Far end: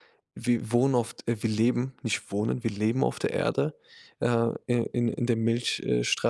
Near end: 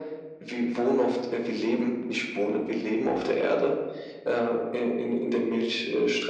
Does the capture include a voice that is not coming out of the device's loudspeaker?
No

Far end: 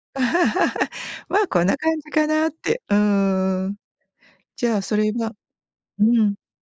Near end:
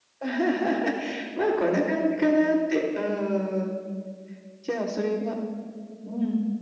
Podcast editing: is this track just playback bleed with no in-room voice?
Yes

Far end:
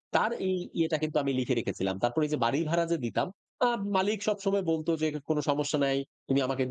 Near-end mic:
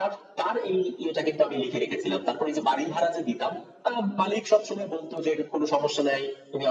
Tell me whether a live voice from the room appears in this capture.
No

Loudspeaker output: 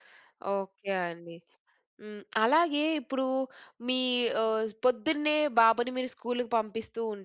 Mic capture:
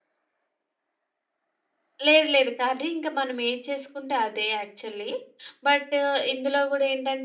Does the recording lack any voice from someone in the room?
No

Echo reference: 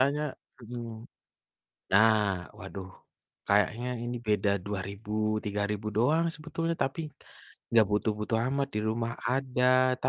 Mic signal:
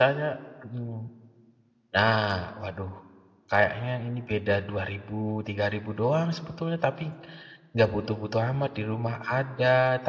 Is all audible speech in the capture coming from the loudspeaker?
Yes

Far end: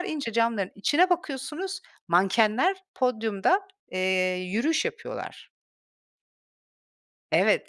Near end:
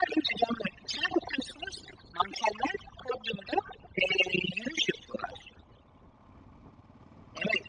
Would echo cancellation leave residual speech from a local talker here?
No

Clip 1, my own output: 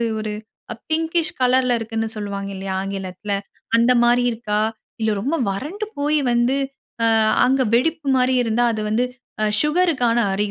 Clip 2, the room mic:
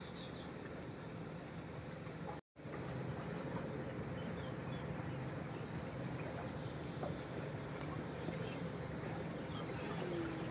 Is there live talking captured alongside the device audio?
No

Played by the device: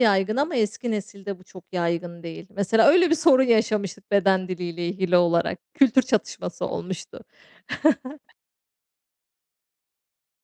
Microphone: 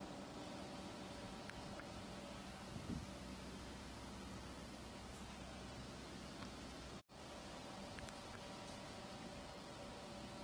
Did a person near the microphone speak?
No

